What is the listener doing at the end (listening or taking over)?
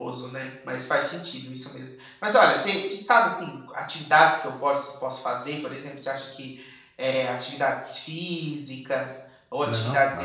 listening